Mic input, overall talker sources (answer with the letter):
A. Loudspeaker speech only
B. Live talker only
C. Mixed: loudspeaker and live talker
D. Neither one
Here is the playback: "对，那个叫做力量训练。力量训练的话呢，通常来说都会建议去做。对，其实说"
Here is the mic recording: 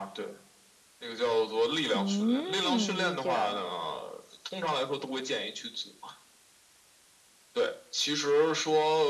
C